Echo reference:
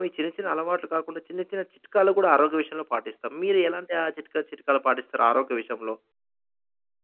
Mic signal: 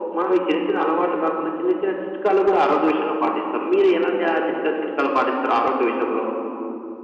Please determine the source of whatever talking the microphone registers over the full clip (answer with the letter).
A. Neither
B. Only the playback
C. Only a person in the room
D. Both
B